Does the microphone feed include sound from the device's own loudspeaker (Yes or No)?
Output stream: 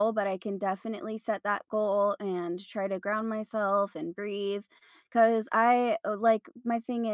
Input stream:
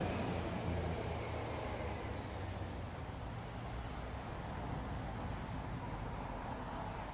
No